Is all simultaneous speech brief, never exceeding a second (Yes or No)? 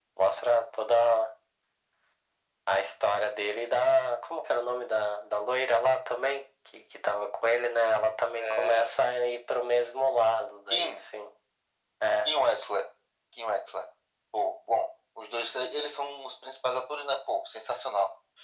Yes